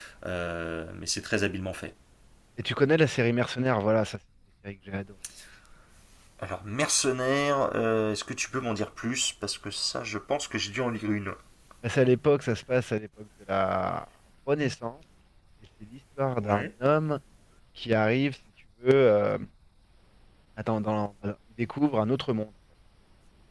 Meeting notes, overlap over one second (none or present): none